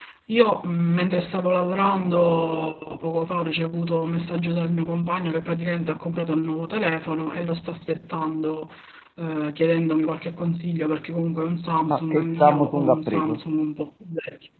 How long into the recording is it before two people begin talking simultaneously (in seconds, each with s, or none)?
11.9 s